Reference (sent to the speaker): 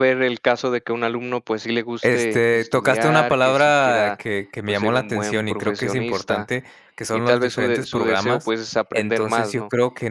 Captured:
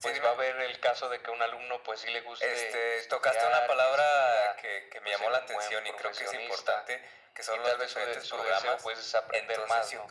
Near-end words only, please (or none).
none